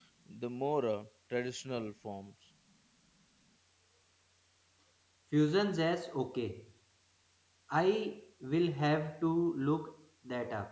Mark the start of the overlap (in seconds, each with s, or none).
none